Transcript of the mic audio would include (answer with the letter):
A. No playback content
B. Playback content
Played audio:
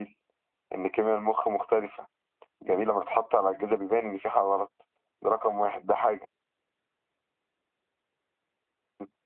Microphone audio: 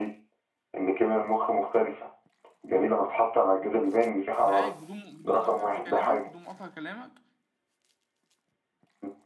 B